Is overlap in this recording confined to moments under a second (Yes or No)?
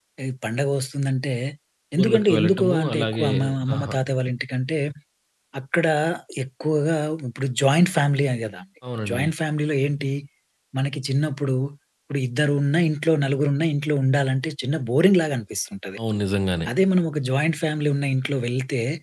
No